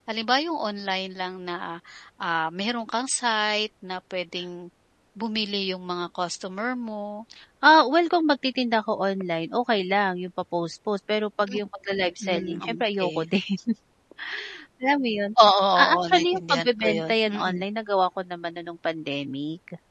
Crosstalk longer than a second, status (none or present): present